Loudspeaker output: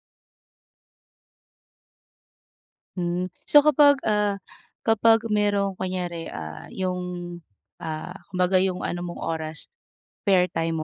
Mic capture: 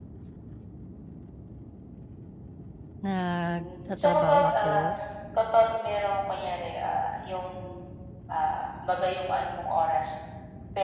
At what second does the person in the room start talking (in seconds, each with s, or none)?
3.0 s